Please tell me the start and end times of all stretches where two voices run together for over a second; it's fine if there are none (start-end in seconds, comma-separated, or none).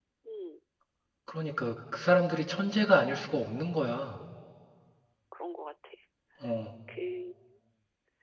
none